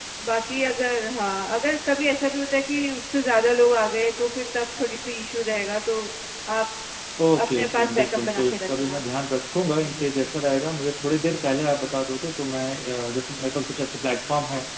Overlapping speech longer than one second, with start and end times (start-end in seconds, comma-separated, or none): 7.4-9.0